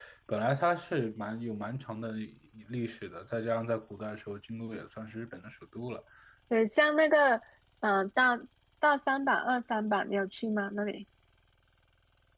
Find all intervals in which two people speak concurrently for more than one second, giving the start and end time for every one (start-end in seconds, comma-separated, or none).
none